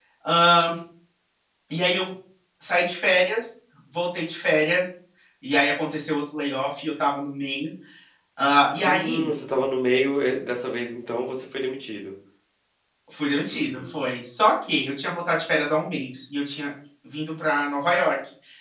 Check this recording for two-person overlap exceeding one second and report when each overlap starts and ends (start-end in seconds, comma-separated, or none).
none